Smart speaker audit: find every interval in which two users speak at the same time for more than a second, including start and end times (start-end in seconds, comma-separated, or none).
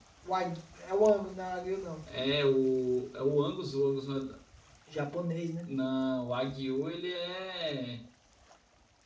none